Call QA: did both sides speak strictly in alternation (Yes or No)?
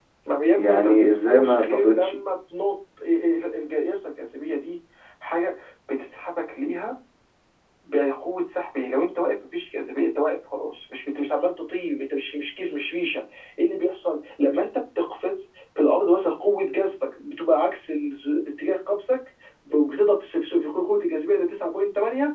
No